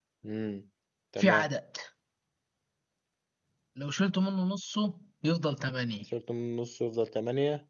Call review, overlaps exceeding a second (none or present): none